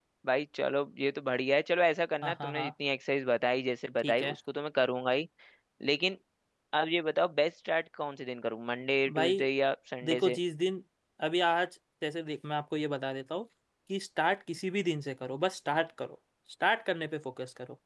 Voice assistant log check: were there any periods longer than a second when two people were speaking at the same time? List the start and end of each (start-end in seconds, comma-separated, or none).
none